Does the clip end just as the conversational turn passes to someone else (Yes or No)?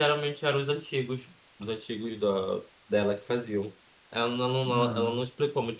No